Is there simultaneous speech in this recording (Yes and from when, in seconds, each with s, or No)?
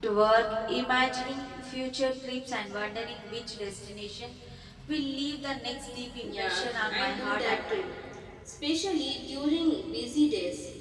Yes, from 6.2 s